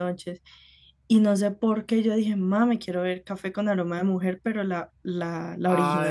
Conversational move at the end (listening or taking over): taking over